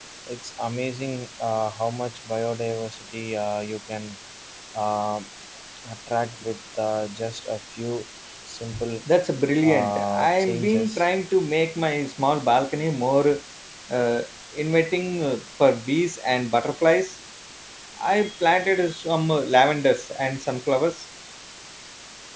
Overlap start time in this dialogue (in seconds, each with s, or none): 9.6 s